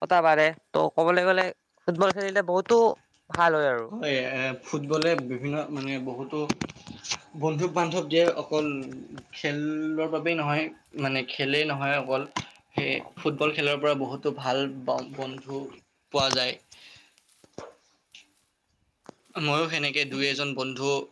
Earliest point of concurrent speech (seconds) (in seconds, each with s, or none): none